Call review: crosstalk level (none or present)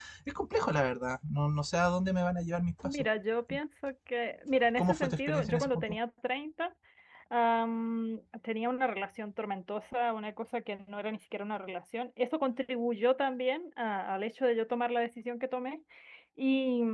present